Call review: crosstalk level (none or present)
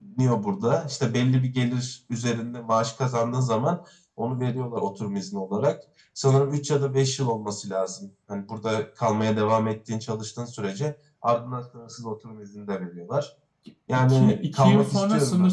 present